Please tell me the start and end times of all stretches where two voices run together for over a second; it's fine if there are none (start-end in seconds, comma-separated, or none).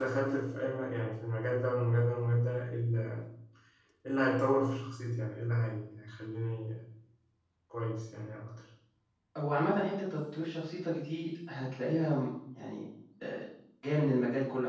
none